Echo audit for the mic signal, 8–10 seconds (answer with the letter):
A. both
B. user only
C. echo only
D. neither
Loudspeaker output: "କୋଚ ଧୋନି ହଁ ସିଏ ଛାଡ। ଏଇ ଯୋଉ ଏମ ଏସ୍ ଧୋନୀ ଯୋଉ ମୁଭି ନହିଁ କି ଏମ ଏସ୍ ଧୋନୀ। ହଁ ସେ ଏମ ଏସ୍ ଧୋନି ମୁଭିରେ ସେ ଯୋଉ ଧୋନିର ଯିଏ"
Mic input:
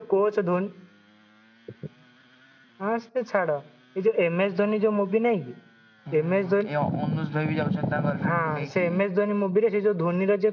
A